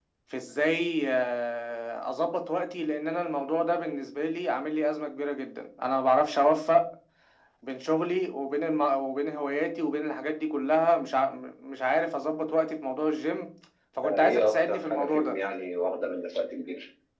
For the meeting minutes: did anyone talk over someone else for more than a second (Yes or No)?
Yes